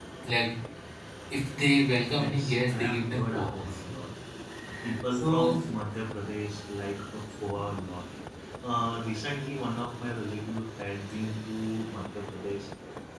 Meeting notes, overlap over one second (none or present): present